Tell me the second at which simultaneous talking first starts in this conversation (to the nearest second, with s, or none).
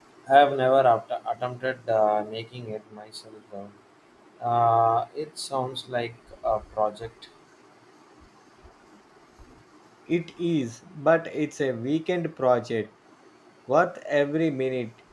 none